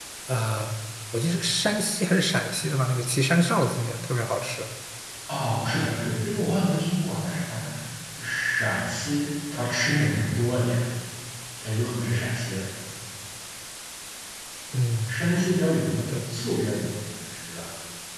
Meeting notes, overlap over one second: none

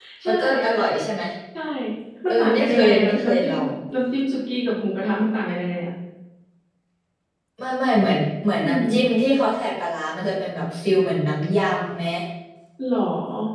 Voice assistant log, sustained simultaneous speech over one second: present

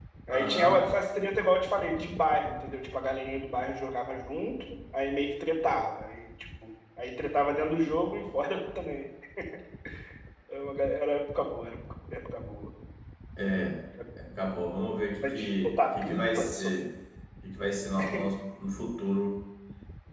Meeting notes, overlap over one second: present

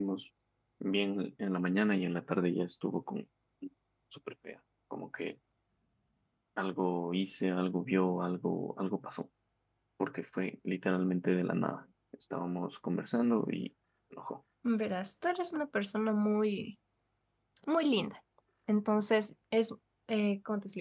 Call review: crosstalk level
none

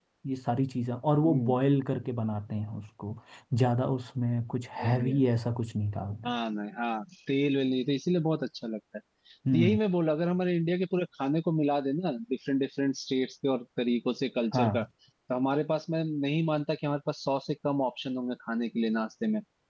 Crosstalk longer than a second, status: none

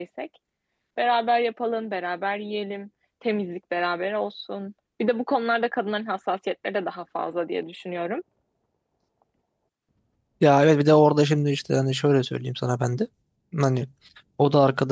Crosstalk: none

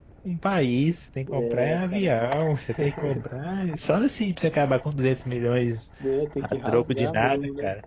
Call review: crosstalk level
present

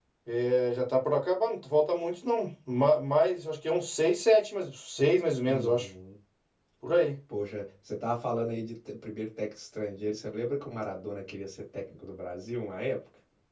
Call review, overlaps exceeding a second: none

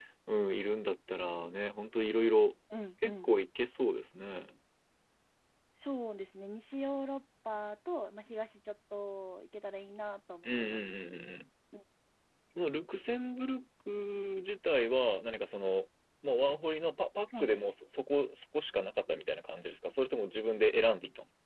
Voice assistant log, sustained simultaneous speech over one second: none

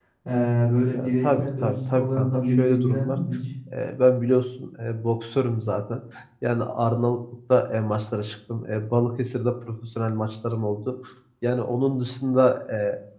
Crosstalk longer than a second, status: present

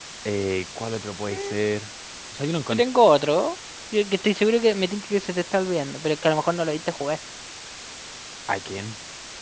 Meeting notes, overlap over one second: none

